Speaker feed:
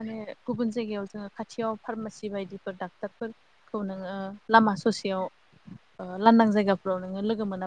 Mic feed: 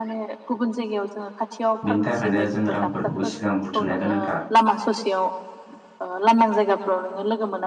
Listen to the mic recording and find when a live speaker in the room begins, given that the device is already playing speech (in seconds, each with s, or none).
1.9 s